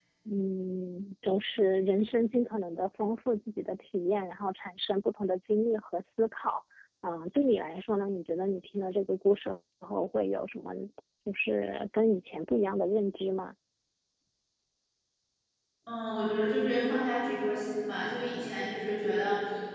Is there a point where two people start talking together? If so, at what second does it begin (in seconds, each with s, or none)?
none